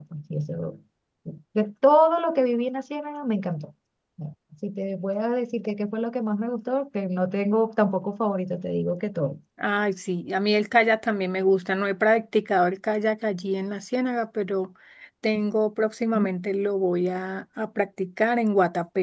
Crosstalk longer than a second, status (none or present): none